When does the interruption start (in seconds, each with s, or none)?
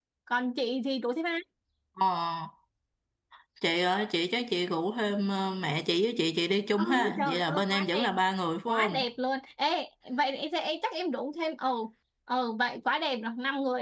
6.8 s